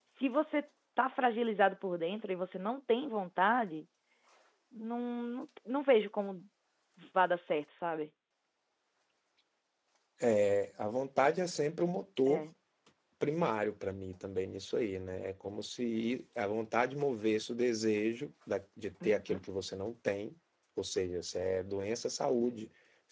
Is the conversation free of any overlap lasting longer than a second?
Yes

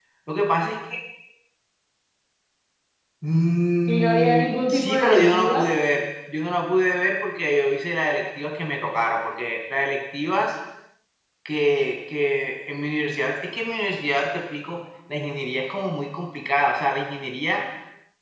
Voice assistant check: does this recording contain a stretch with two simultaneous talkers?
Yes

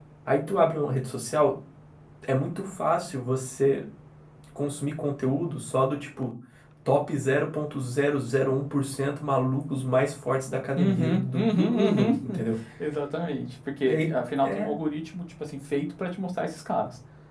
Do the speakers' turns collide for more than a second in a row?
Yes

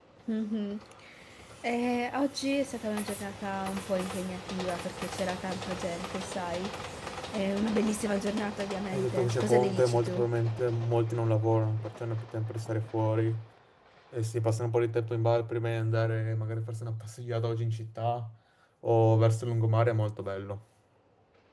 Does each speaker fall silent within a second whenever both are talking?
No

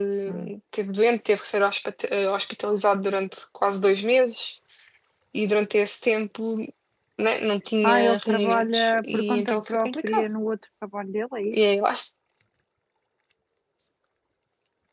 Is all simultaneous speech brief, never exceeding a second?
No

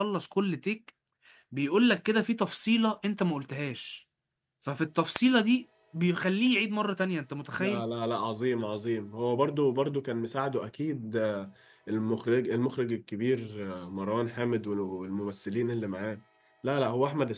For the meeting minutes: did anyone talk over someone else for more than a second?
No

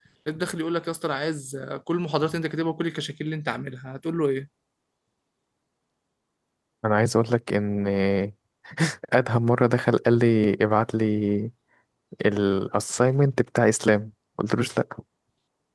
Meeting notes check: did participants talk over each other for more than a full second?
No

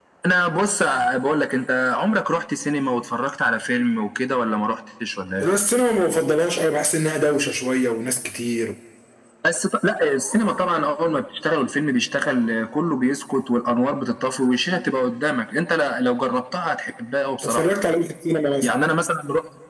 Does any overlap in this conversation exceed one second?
No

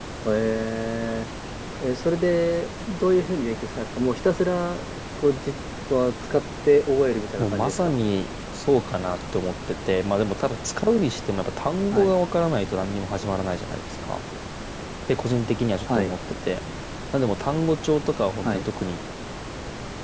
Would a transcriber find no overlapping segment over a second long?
Yes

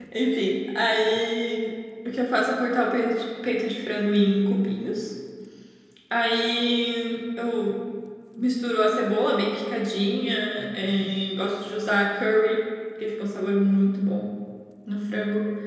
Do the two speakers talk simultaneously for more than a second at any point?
No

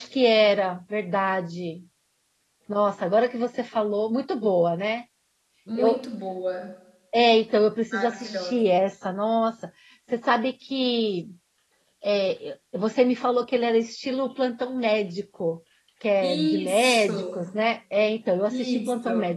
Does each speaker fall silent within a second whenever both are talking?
No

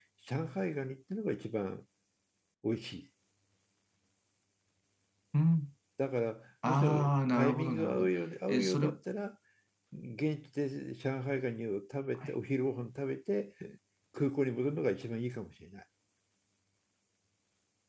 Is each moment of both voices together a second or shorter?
No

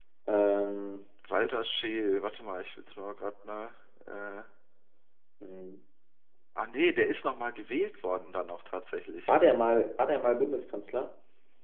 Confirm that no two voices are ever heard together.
Yes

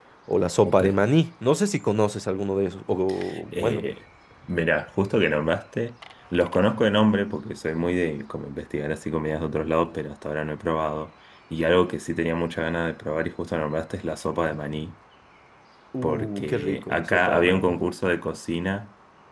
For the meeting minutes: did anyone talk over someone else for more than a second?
Yes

